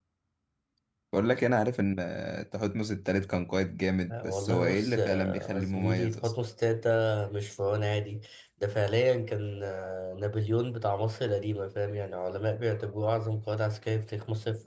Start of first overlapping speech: 4 s

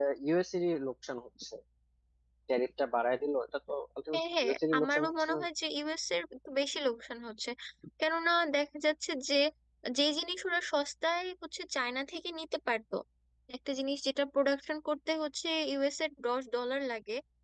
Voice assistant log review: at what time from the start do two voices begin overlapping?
4 s

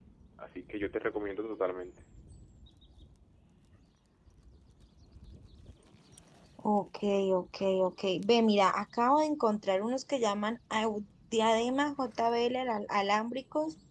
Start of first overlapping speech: none

